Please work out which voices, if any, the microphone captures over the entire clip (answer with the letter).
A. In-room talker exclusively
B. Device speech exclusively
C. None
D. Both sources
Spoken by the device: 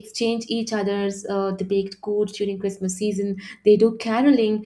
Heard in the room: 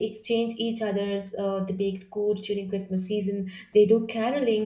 B